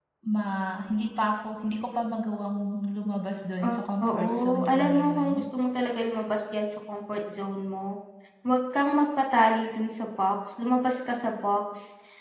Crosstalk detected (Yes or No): Yes